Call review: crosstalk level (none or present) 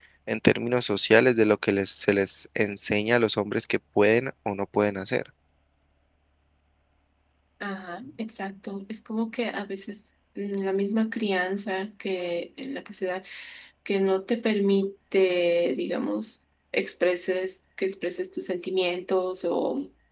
none